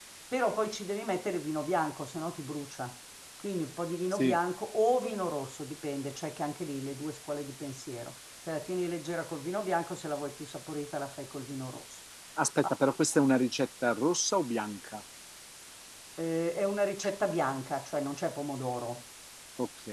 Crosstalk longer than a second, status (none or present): none